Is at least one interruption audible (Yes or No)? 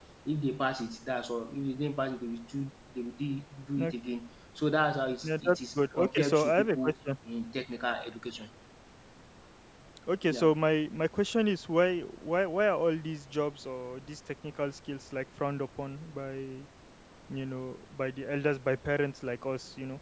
Yes